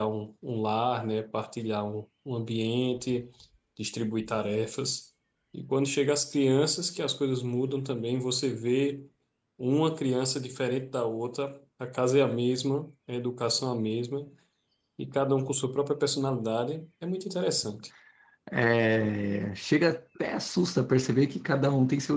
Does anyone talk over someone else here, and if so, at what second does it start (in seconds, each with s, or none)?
none